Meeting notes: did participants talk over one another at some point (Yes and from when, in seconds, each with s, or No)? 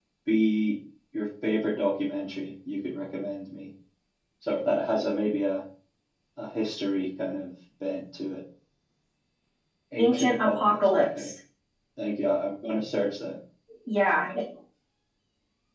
Yes, from 10.0 s